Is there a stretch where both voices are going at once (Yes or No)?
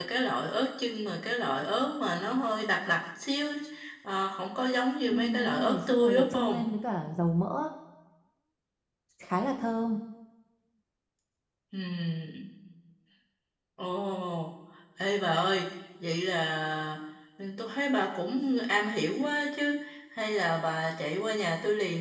Yes